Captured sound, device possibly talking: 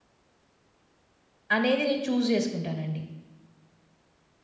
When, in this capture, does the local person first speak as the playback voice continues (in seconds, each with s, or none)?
1.6 s